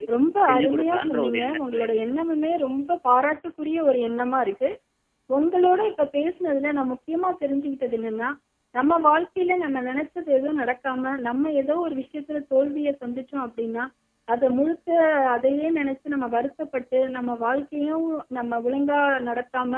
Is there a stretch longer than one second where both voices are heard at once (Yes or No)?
Yes